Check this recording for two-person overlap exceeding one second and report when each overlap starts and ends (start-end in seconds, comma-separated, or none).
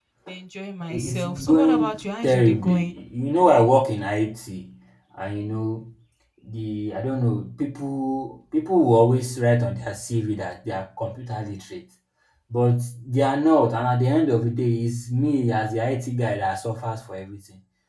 0.9-2.9